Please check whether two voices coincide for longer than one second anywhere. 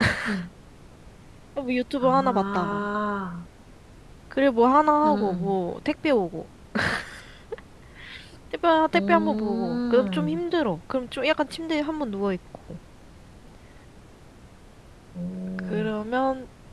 Yes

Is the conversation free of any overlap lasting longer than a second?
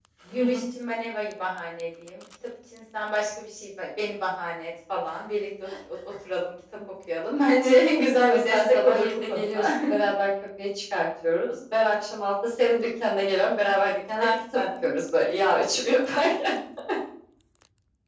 No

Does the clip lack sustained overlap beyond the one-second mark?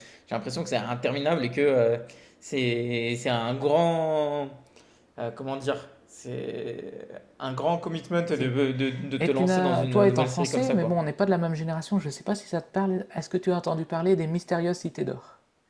No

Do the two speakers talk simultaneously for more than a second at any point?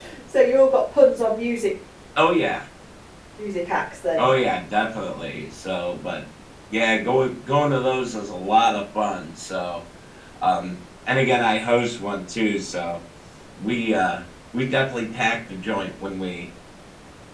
No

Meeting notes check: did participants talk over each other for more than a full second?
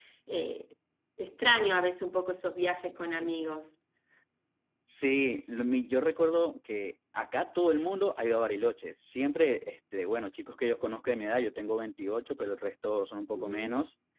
No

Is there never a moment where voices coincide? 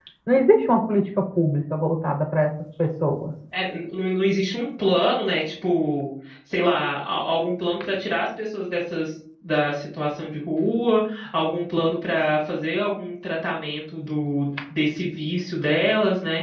Yes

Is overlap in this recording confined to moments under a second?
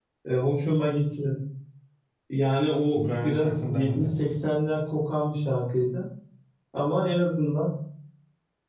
No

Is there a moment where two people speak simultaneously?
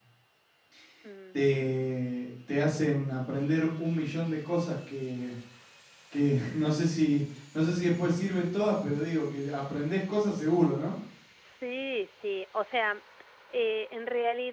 No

